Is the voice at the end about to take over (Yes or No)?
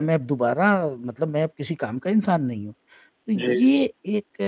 No